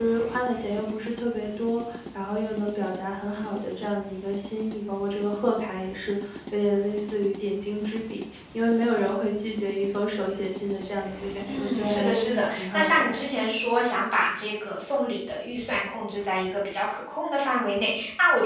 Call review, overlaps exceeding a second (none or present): present